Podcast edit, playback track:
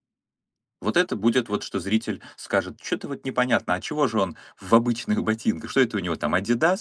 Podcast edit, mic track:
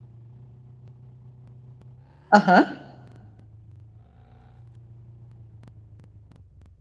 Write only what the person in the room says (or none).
Ага.